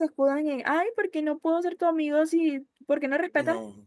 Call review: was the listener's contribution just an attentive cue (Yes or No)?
Yes